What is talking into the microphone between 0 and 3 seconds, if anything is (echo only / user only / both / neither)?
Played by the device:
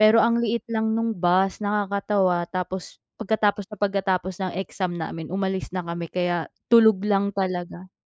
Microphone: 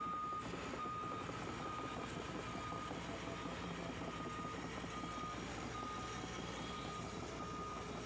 neither